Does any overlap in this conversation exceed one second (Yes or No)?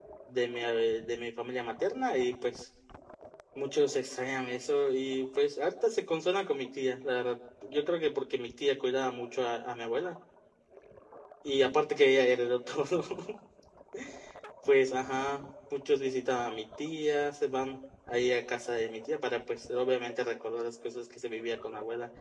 No